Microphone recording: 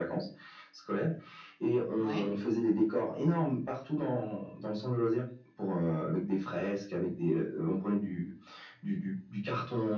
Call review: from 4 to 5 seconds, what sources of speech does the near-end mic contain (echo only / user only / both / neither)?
echo only